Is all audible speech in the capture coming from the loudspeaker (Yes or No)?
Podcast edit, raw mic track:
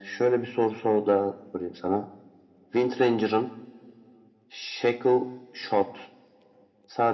Yes